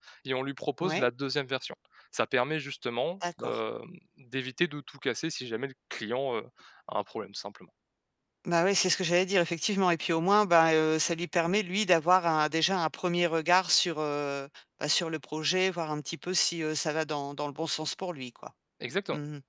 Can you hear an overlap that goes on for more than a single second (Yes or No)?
No